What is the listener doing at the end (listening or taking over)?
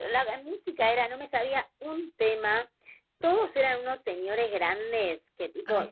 listening